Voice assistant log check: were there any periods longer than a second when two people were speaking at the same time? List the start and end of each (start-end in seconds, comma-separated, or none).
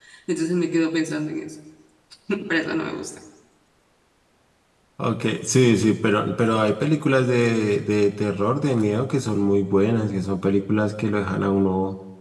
none